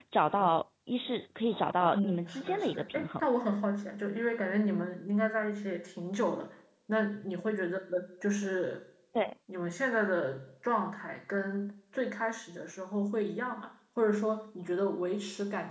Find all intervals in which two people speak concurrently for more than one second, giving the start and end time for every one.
1.9-3.2

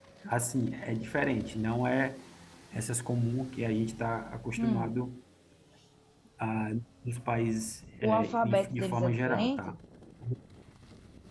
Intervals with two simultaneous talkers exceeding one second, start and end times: 8.0-9.7

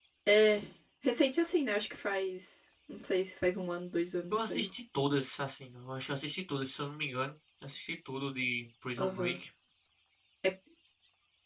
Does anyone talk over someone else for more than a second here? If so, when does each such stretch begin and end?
none

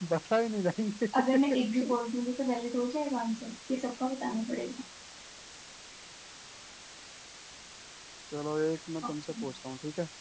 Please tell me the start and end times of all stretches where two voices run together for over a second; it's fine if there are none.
none

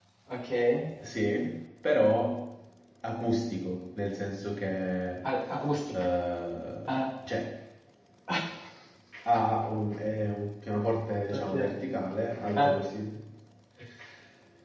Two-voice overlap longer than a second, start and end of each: none

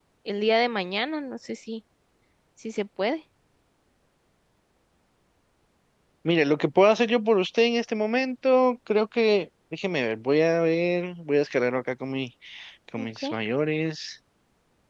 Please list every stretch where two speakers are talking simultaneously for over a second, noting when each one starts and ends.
none

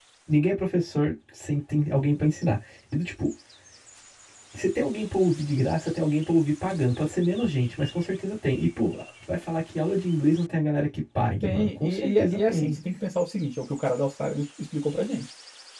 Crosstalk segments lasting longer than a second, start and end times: 11.4-12.8

